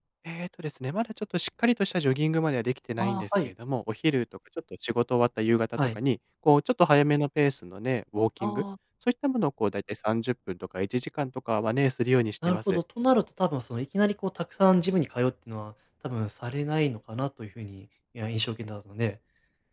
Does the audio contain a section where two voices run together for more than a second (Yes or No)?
No